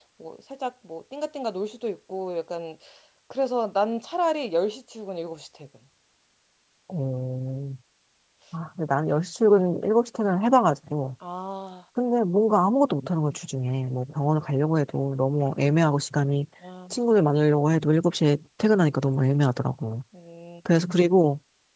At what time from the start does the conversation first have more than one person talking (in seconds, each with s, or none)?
none